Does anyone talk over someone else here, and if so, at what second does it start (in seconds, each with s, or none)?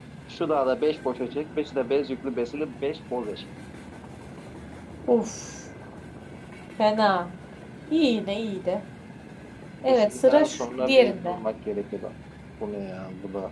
9.9 s